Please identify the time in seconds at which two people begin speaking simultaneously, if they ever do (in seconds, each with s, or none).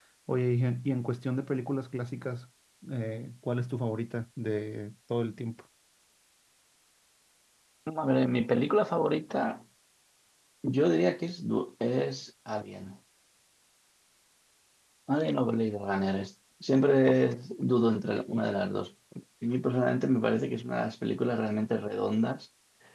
none